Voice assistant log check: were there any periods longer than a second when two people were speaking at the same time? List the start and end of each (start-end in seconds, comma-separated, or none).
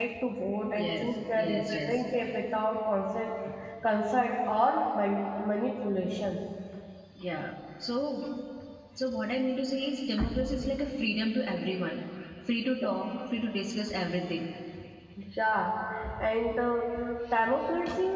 0.8-2.0